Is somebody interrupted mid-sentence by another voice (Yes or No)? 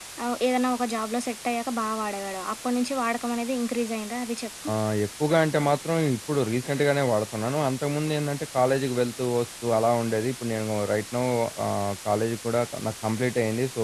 No